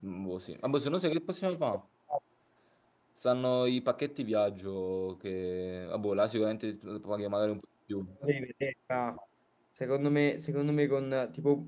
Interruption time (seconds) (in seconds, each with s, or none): none